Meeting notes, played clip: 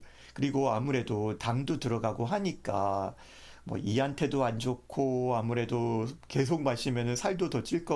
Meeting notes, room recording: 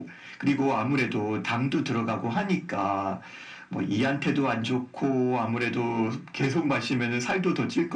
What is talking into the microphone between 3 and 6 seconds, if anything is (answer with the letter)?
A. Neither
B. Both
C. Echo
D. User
C